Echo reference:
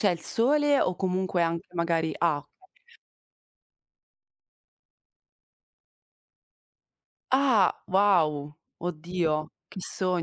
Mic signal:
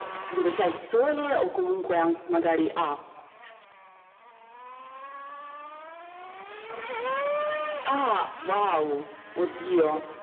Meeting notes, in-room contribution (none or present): none